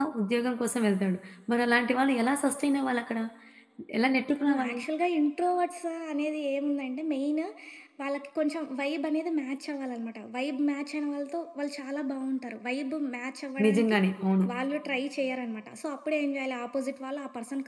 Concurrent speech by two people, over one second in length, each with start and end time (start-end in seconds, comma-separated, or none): none